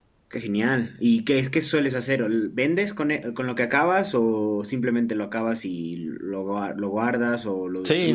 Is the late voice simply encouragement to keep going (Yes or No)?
No